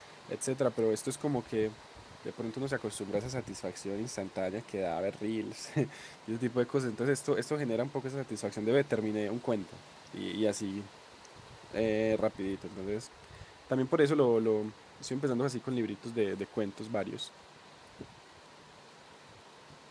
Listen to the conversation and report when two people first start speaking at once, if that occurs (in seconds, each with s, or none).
none